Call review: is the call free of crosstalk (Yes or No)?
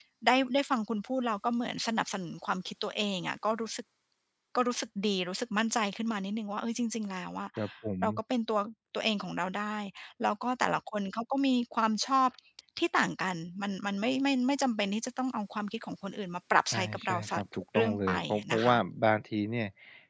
No